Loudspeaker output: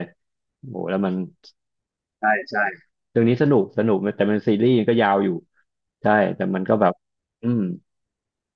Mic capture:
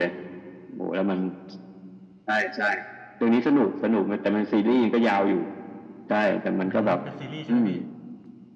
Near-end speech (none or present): present